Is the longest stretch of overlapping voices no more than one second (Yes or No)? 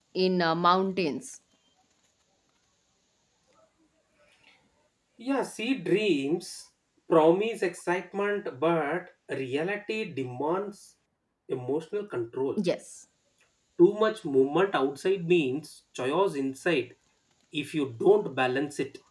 Yes